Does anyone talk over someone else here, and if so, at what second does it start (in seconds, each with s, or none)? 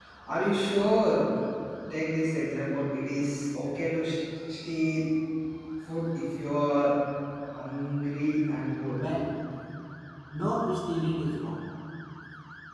none